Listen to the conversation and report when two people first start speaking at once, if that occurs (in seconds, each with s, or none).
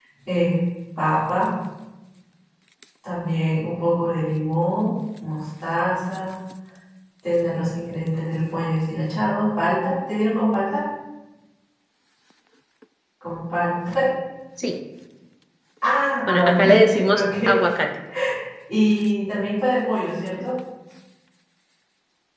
16.3 s